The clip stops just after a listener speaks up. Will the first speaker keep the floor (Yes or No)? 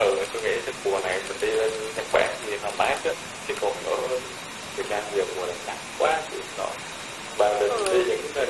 Yes